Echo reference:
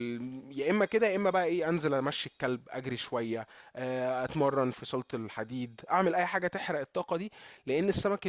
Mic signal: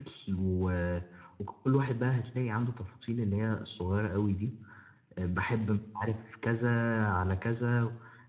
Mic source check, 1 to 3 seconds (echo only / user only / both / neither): user only